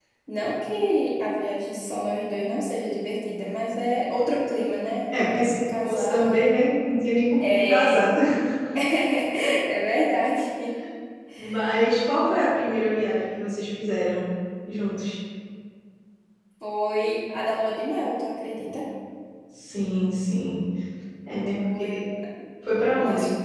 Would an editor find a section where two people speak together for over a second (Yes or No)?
Yes